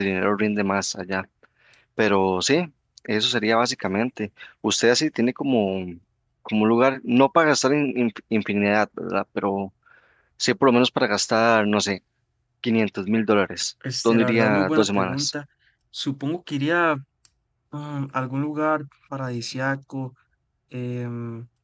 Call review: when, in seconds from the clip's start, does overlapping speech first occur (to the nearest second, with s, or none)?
14 s